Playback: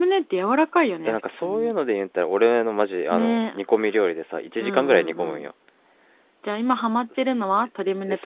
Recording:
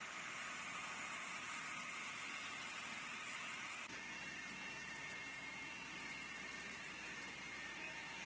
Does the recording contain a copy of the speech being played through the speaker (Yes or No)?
No